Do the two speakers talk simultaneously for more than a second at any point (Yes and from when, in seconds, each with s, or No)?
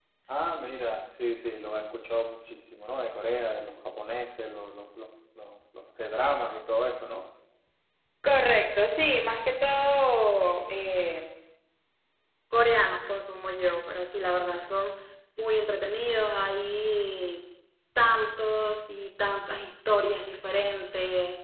No